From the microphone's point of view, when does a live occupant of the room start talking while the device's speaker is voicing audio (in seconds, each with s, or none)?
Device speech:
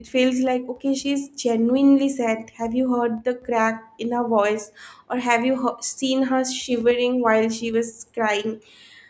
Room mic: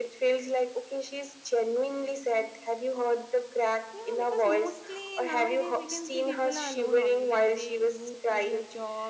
3.9 s